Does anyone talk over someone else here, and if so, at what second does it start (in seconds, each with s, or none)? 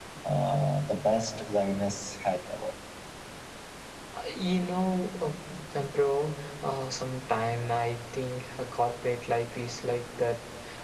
none